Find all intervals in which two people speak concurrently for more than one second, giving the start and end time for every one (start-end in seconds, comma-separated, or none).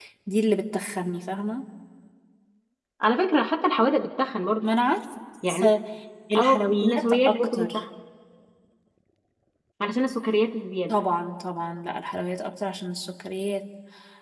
6.4-7.8